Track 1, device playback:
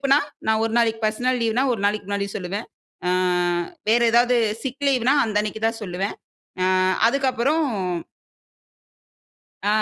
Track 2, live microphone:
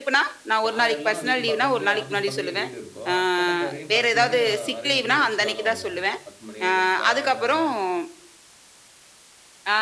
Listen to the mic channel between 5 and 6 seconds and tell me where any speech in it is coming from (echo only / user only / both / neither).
both